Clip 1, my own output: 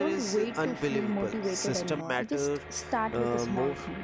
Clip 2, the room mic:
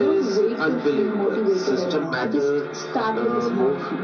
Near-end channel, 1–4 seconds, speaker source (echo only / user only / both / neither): echo only